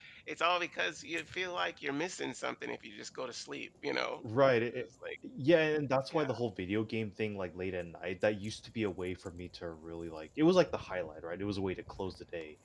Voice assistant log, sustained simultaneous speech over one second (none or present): none